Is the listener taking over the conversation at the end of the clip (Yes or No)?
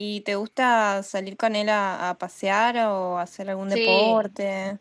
Yes